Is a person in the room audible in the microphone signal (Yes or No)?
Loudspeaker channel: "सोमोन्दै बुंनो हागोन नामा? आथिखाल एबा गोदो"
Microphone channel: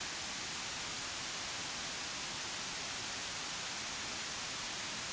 No